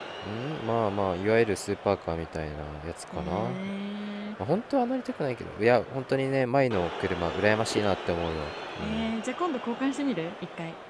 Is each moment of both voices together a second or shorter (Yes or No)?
Yes